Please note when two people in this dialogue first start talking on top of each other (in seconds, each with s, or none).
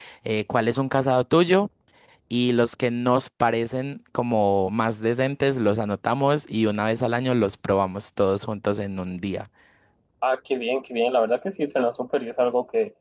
none